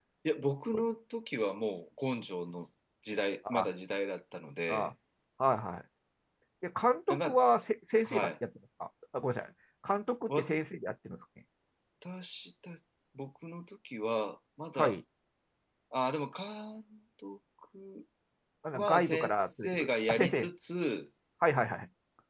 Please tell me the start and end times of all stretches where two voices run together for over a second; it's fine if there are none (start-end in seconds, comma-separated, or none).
18.7-20.5